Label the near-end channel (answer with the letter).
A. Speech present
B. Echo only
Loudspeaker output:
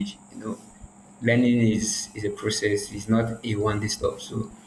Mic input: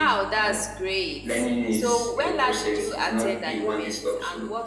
A